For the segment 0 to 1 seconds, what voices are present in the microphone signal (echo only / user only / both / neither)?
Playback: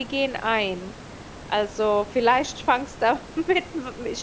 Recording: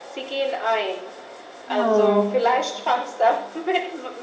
echo only